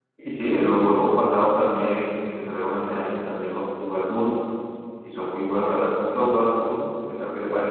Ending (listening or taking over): taking over